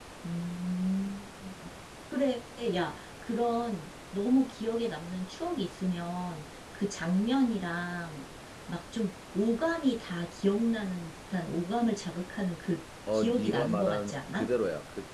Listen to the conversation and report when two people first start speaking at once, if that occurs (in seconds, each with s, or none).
13.1 s